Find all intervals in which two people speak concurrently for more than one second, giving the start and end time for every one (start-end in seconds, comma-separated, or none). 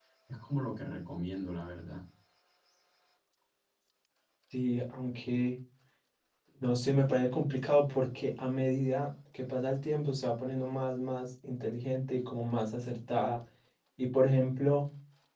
none